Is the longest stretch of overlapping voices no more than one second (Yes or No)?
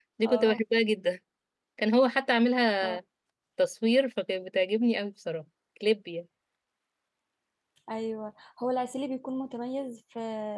Yes